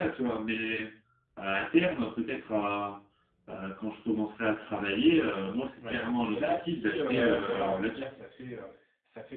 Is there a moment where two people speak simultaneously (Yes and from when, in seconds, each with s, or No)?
Yes, from 5.8 s